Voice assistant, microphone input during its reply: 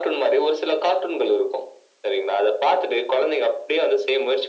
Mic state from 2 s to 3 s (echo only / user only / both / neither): echo only